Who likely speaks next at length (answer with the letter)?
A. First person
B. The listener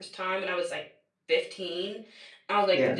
A